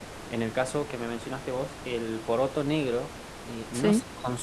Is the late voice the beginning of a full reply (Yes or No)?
No